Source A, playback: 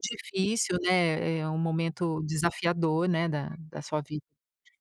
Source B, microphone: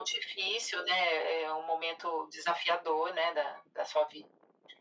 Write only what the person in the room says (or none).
none